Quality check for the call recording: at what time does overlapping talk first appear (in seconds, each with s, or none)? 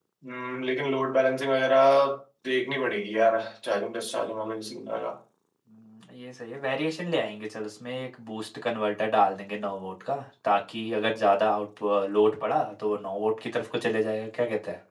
none